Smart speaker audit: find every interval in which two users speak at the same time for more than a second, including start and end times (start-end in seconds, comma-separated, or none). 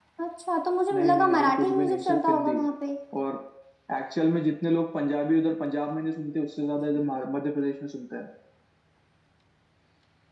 0.9-2.6